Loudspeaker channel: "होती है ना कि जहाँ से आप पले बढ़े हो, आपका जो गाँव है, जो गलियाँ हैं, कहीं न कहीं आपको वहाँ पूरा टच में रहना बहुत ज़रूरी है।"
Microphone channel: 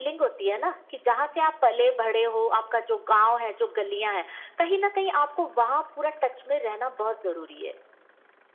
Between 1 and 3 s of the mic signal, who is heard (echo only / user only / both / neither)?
echo only